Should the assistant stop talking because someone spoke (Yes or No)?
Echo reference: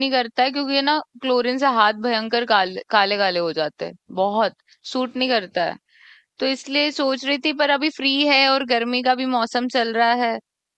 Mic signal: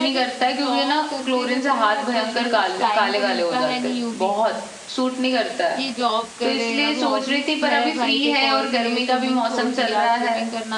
Yes